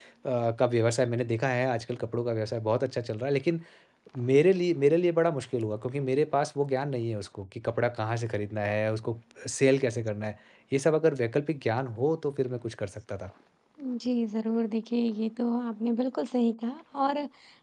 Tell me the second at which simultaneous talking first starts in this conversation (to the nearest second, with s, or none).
none